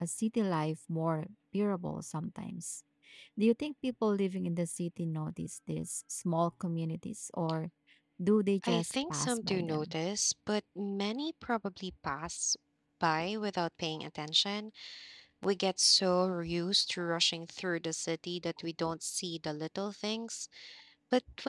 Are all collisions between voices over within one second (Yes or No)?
No